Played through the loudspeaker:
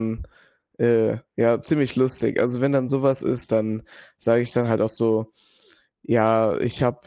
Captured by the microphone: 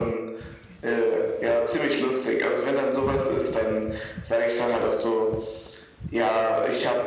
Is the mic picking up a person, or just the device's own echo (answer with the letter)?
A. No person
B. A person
A